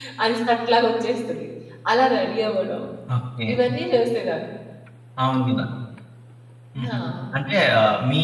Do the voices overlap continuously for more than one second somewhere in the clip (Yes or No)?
No